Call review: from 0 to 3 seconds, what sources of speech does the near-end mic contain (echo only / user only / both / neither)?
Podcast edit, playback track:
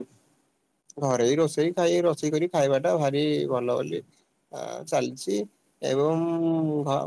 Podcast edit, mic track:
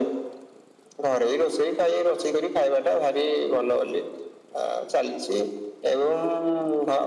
echo only